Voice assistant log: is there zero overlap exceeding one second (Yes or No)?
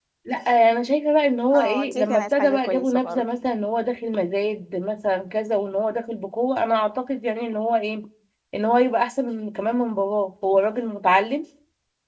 No